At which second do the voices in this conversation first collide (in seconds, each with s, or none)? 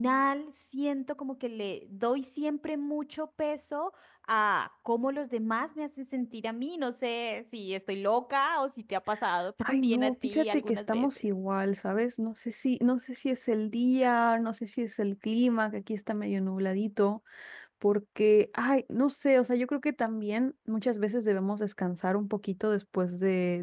9.7 s